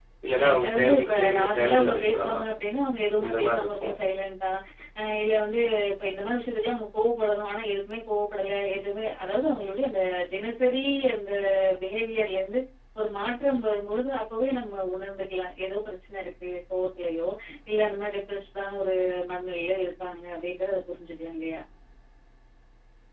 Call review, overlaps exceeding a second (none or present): present